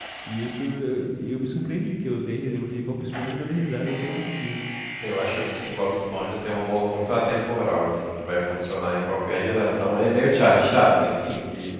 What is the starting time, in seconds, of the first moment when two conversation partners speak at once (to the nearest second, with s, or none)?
none